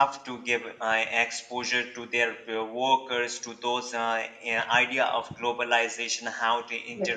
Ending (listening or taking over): listening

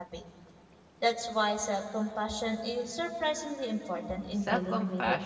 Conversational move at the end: taking over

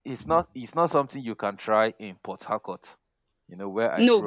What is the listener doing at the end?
listening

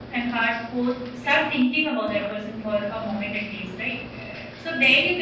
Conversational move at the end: listening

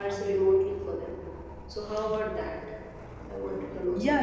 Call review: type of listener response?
taking over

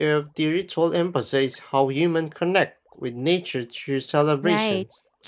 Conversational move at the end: taking over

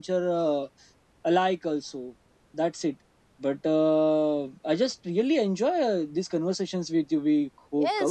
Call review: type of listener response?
taking over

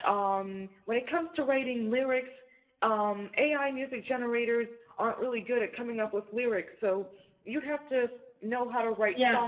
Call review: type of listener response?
listening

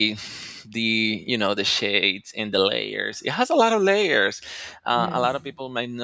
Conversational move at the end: listening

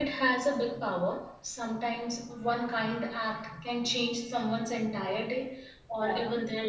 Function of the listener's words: listening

